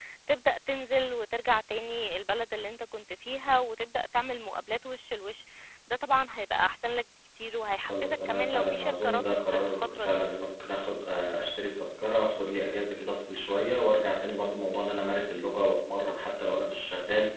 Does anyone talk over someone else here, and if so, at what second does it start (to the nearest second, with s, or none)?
8 s